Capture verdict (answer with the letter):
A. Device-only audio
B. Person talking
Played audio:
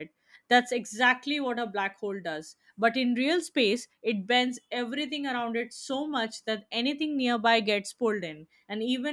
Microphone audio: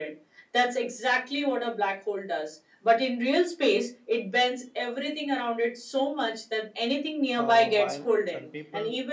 B